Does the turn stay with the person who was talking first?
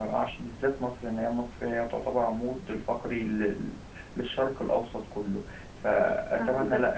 No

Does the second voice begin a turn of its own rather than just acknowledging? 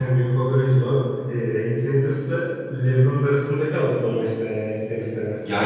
No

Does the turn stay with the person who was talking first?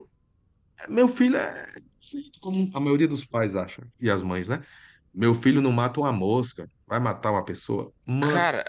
No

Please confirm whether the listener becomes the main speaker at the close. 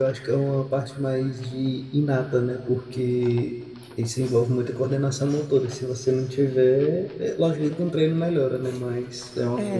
Yes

